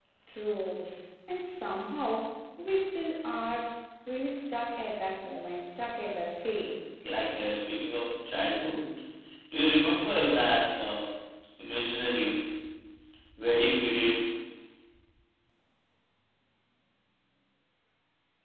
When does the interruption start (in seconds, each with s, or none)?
none